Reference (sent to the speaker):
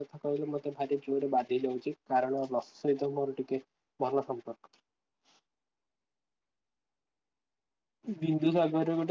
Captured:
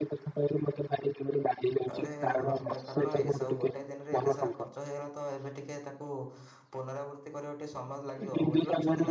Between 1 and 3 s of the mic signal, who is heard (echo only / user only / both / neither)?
both